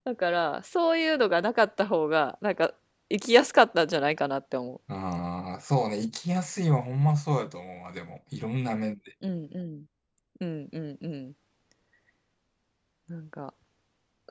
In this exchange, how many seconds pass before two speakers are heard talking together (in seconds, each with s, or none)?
none